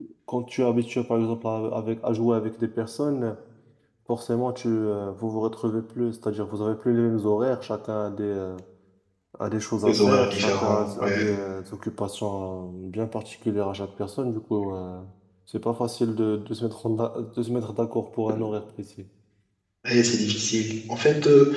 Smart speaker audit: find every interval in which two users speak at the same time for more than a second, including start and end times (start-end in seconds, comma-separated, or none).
9.8-11.2